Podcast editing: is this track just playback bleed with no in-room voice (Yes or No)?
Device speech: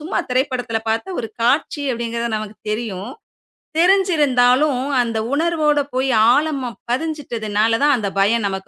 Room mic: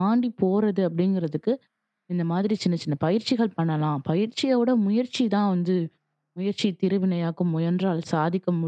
No